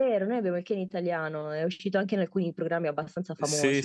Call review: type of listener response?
taking over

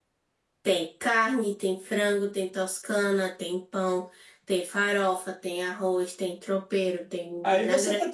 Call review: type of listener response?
taking over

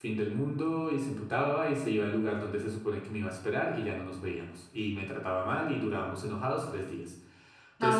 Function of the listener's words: taking over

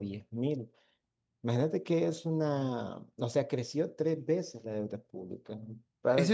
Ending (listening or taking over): taking over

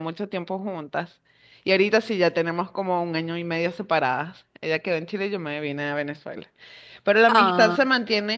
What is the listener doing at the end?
listening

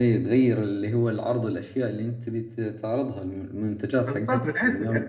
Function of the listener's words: taking over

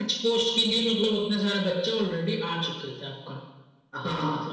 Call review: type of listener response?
taking over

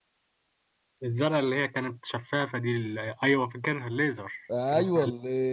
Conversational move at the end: taking over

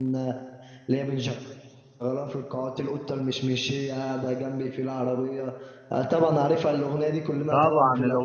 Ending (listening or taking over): taking over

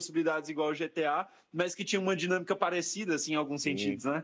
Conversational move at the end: taking over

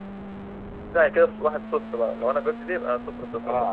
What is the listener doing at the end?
taking over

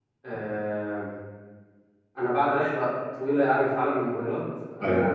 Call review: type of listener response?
listening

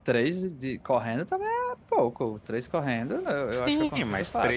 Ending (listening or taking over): taking over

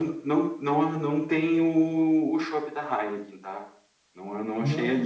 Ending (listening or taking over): listening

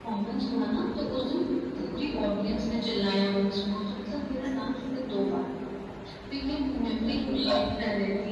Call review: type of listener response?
listening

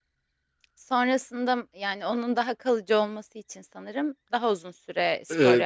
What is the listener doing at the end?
taking over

